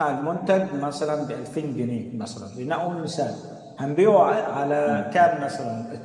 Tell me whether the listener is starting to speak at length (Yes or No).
No